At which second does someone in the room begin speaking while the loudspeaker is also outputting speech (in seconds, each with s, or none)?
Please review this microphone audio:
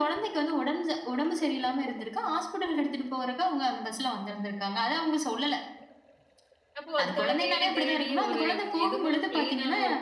6.8 s